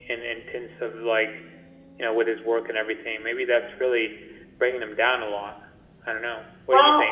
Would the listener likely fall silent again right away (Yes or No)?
No